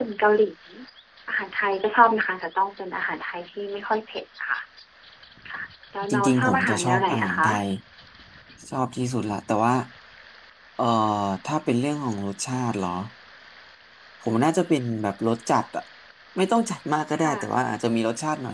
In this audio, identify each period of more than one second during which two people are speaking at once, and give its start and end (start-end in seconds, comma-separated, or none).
6.1-7.5